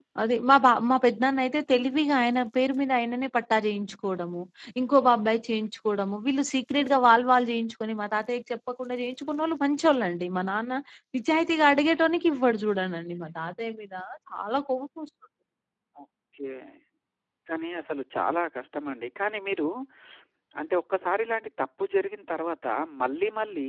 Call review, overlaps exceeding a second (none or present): none